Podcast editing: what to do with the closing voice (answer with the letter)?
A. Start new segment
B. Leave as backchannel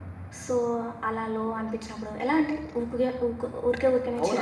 A